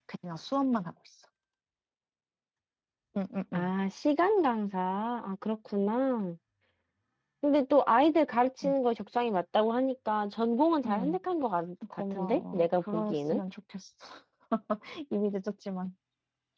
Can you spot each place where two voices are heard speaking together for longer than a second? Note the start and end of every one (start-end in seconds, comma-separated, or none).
12.1-13.4